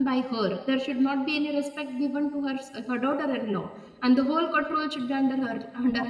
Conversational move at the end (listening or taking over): taking over